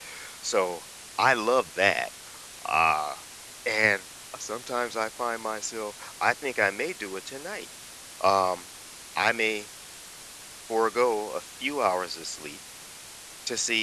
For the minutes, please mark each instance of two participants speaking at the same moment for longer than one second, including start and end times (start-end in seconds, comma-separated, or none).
none